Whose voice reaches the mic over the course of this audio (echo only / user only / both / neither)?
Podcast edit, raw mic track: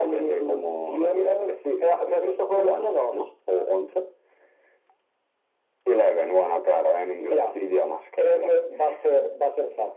echo only